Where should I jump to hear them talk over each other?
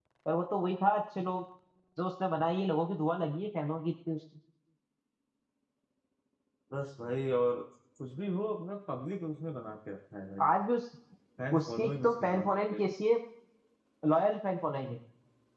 11.6 s

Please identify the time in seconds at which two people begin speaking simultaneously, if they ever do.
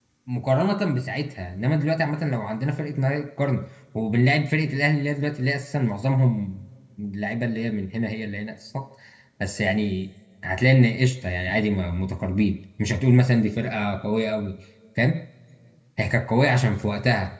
none

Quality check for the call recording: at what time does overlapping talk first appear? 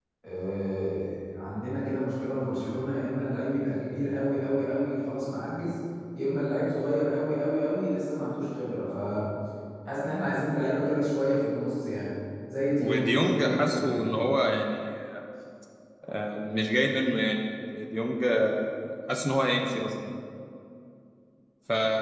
12.8 s

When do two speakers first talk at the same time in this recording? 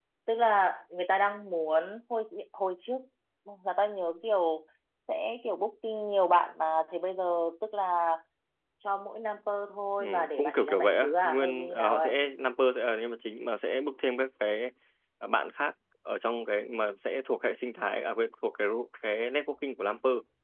10.0 s

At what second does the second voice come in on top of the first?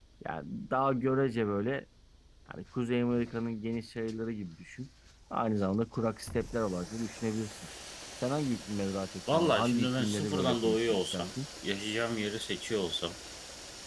9.3 s

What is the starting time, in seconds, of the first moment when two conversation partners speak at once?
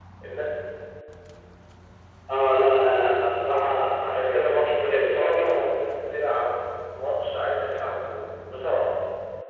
4.2 s

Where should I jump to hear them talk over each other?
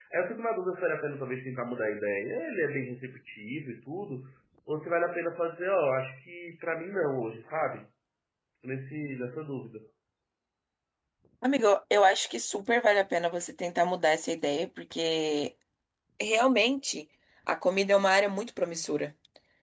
none

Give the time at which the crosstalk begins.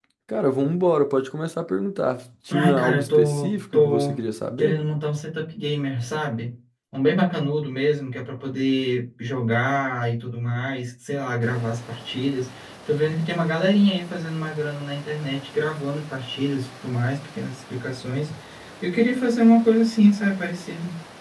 2.5 s

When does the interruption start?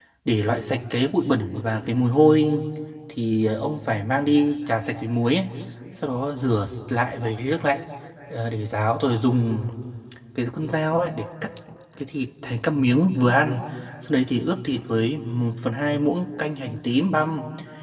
none

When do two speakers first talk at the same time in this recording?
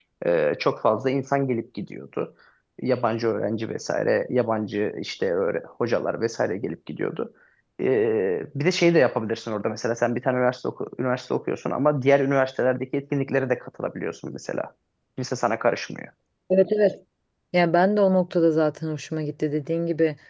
none

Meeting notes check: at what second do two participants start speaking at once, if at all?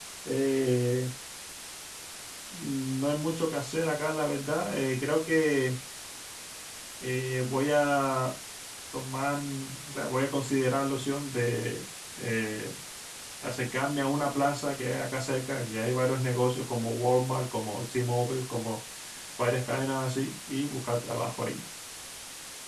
none

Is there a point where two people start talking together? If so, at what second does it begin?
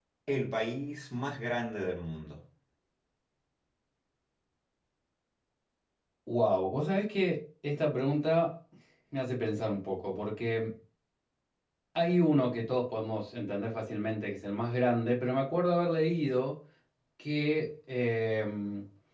none

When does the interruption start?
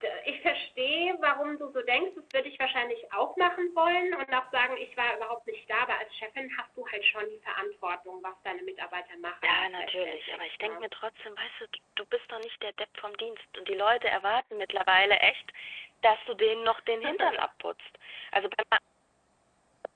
9.4 s

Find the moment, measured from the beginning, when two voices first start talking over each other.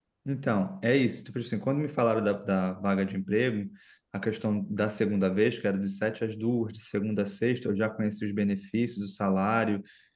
none

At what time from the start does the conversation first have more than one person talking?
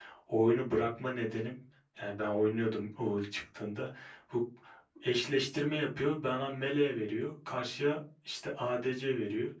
none

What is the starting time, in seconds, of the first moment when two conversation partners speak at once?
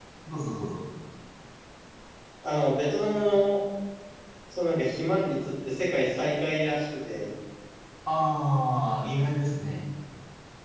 none

